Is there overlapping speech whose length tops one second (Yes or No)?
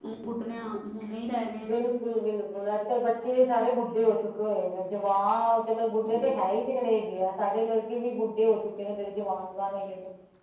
No